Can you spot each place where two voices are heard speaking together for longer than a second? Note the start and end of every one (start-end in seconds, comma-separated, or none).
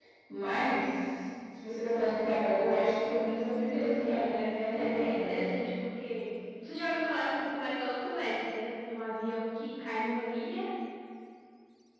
4.0-5.4